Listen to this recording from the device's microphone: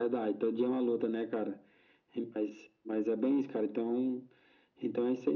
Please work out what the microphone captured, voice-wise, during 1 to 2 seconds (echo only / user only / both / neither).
echo only